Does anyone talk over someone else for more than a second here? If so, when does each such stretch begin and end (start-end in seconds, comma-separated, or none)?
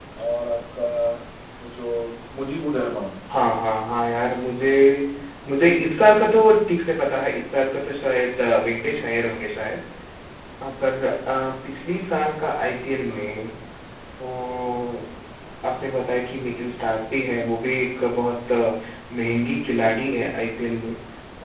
none